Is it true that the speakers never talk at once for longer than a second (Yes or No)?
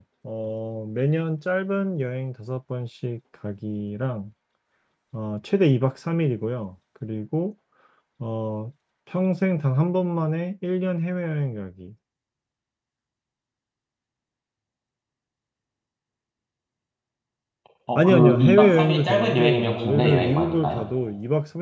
No